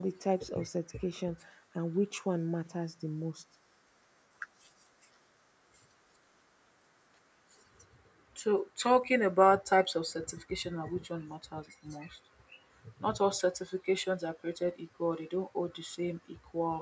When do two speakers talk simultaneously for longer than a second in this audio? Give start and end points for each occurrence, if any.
none

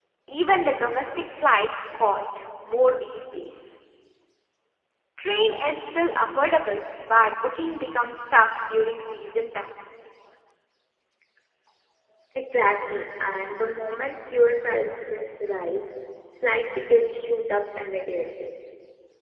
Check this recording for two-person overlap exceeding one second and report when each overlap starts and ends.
none

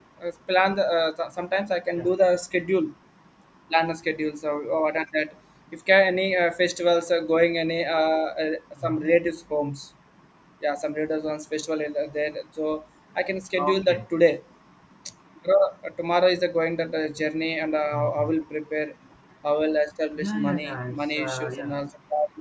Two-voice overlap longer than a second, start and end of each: 20.2-21.7

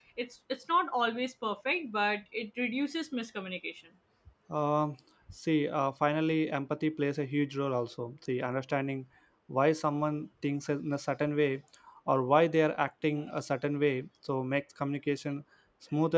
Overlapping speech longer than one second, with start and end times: none

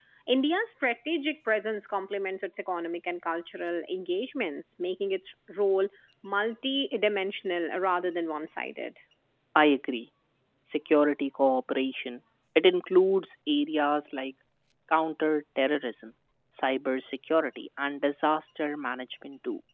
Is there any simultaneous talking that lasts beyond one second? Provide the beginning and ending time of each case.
none

